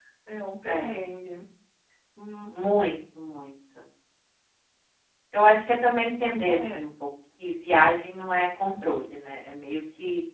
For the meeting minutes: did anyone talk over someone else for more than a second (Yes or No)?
No